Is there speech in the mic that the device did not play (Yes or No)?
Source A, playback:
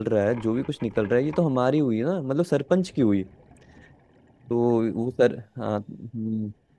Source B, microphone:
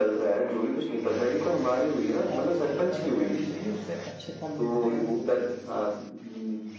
Yes